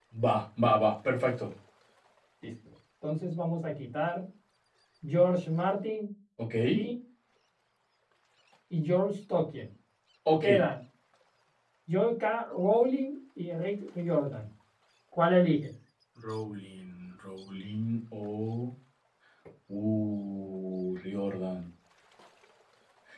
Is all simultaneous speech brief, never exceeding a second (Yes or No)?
Yes